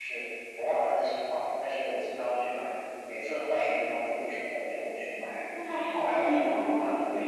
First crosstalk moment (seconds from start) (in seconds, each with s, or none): 5.5 s